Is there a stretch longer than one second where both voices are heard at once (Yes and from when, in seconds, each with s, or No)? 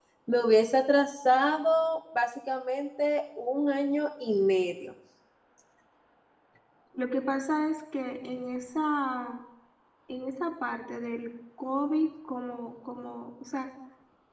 No